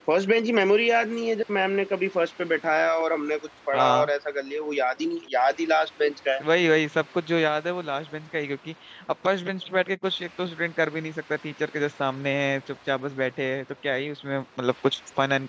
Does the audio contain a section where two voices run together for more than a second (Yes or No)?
No